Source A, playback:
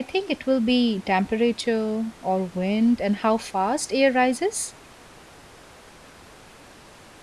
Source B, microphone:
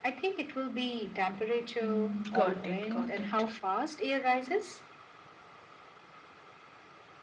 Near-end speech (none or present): present